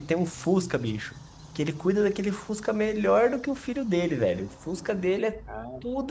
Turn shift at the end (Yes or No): No